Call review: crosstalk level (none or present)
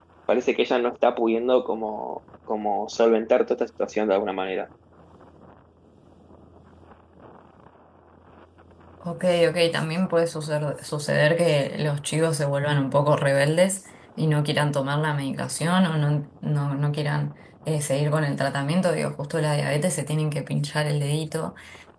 none